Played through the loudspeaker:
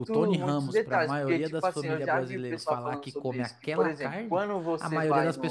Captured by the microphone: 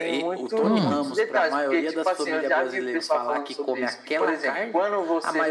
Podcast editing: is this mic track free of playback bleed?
No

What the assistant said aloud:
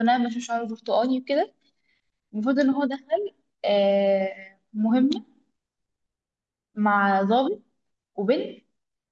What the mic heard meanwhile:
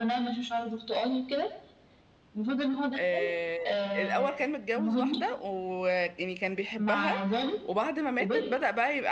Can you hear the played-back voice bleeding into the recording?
Yes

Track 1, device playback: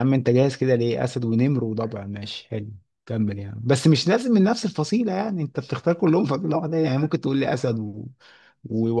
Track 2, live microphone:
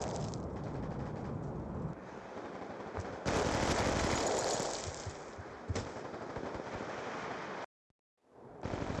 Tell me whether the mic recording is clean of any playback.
Yes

